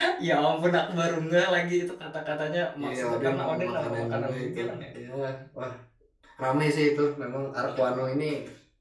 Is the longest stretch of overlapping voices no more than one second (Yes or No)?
No